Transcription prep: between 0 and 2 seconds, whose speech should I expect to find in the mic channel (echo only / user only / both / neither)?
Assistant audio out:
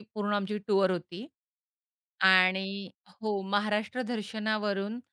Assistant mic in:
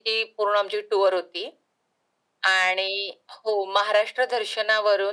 echo only